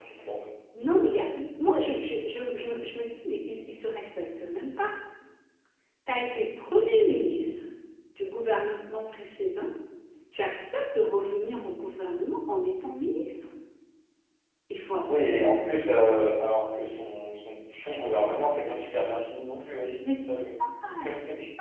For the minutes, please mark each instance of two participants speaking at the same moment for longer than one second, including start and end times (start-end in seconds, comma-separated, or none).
none